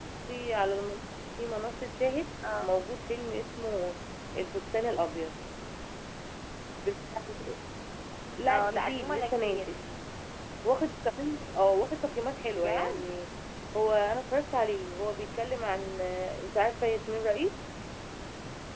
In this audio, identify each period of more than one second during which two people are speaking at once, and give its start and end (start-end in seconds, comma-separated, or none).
8.5-9.7